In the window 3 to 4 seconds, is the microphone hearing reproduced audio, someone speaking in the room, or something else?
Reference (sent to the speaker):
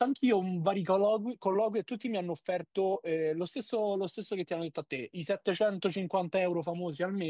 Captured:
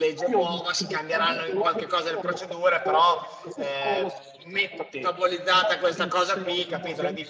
both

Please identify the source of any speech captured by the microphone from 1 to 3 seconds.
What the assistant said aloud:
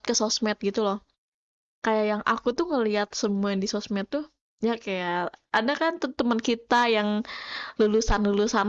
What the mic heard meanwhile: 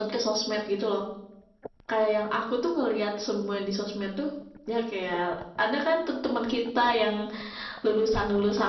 echo only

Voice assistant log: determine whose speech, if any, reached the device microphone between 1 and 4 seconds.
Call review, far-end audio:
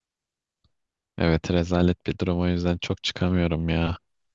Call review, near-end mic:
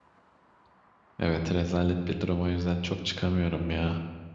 echo only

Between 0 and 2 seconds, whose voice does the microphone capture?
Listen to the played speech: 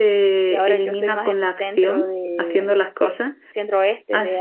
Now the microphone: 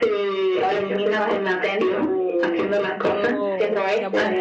echo only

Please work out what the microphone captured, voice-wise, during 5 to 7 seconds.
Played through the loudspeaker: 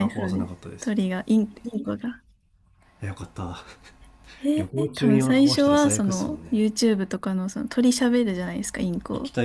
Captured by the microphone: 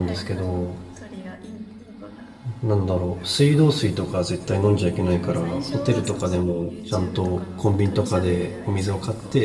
both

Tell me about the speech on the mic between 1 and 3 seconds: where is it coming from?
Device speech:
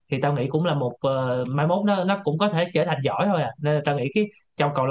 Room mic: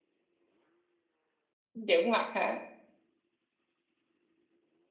user only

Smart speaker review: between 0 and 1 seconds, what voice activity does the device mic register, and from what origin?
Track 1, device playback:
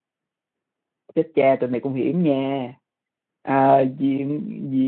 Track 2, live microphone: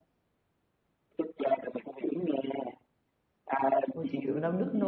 neither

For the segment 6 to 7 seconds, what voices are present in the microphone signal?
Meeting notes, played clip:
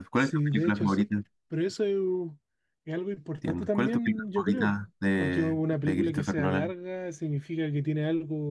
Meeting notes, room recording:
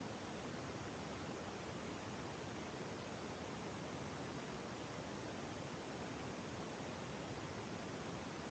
neither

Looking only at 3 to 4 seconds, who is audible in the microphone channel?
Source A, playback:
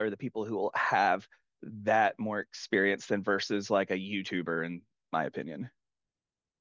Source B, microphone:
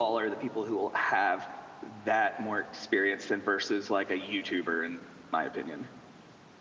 echo only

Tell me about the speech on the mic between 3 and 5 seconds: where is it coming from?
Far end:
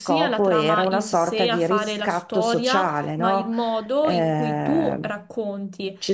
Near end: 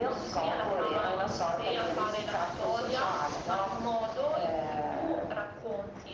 echo only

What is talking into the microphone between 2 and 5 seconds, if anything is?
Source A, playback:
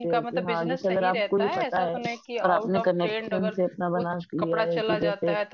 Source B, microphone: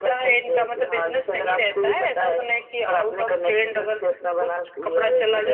echo only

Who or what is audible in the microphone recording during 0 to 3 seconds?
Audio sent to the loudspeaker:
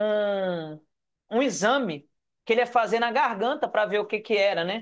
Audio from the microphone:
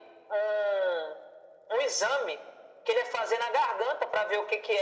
echo only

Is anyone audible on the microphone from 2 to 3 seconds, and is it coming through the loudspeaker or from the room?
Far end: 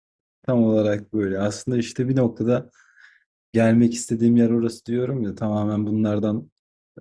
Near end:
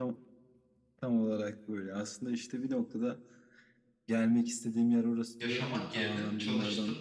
echo only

